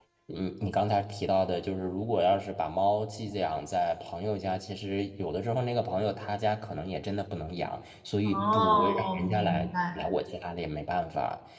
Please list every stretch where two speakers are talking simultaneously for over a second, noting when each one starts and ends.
8.2-10.0

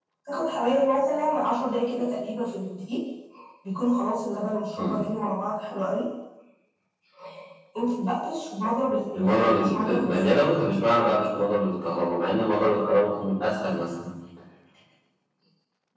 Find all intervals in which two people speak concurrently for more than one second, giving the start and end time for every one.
9.2-10.4

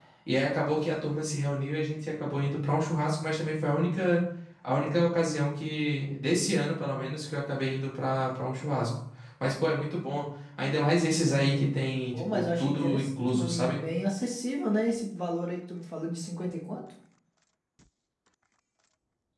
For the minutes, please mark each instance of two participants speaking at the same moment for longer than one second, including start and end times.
11.1-13.8

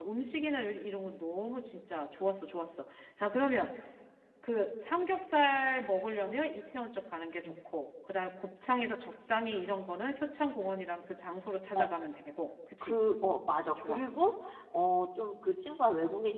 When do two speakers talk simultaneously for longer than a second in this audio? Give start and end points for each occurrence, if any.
none

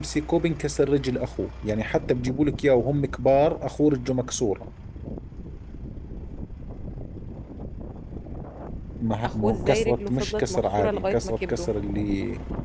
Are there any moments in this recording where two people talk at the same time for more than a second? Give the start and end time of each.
9.3-11.7

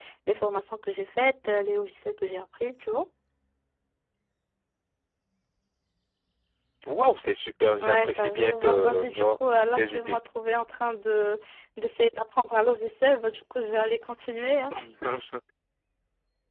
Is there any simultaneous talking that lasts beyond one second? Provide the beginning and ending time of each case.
7.8-10.2

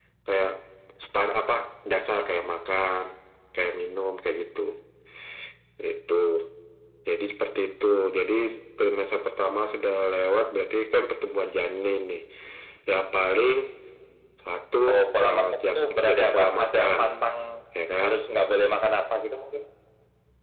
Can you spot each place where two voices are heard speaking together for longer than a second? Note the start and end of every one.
15.2-17.0

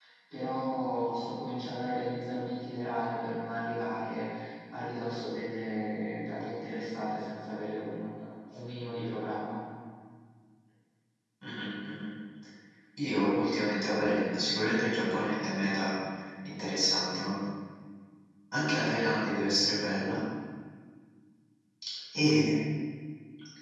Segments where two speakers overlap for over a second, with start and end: none

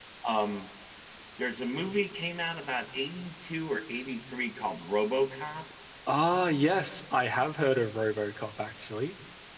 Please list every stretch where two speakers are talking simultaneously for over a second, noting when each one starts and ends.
none

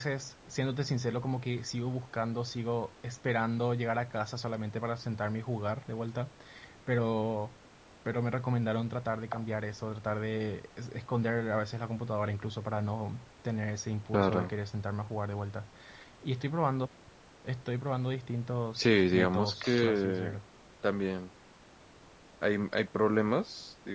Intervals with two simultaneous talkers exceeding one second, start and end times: 18.8-20.4

